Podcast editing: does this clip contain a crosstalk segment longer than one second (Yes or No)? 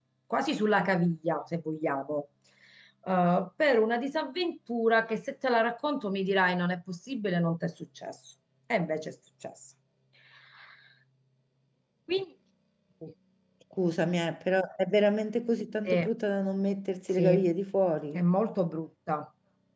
No